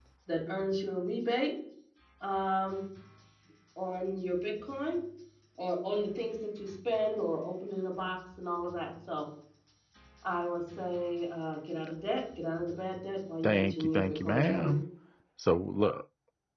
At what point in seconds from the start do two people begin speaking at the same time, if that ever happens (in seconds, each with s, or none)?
13.4 s